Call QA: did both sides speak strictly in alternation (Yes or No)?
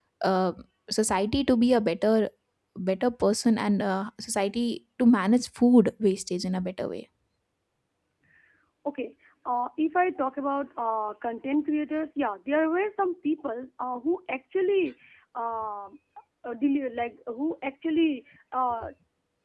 Yes